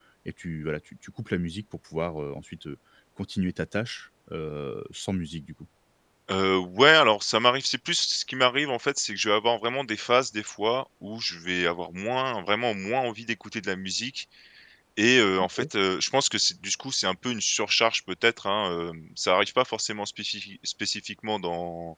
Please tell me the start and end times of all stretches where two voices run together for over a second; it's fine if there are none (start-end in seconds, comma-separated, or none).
none